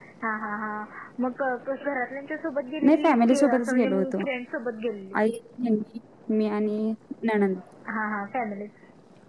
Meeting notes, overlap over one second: present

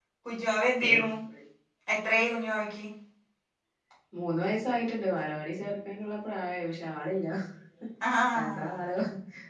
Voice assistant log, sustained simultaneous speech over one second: none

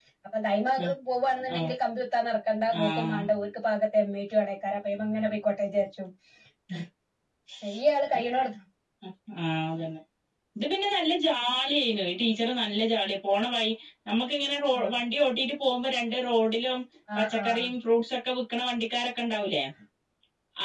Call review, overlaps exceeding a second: none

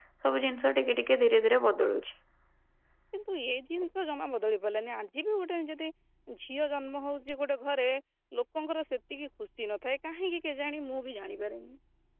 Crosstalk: none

